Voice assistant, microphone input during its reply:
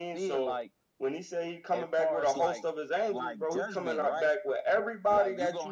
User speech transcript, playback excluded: none

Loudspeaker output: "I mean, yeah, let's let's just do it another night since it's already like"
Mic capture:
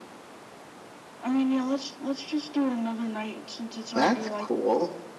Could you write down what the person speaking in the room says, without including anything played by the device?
That's cool.

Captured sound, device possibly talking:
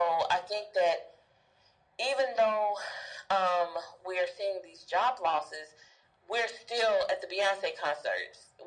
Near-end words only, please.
none

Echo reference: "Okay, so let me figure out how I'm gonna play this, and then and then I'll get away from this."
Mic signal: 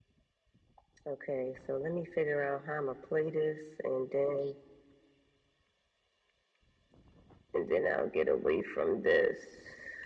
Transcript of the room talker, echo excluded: none

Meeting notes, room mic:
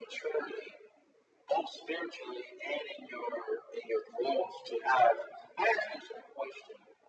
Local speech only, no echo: none

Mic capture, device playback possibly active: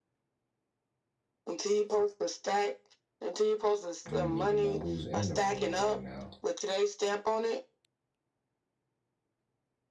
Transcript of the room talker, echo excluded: I don't even know who's in the room right now.

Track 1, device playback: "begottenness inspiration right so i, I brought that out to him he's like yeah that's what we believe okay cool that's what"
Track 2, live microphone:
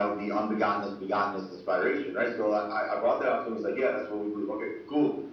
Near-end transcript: none

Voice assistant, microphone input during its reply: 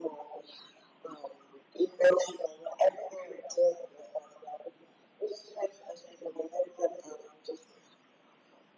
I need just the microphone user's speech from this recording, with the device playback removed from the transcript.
none

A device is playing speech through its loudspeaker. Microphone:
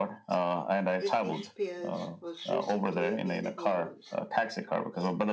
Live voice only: Britney Spears was recently in the news

